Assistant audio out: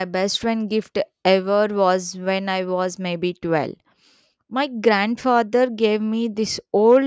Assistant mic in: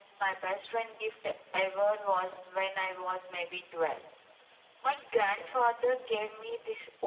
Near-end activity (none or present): present